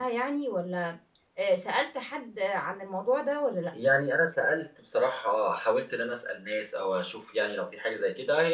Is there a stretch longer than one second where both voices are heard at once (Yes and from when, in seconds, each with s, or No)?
No